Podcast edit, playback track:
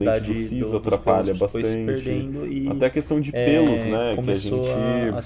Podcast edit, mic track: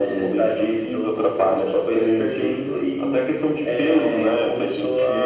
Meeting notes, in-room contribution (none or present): none